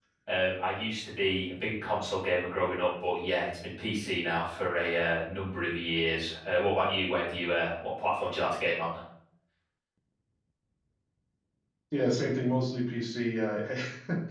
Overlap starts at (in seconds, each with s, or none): none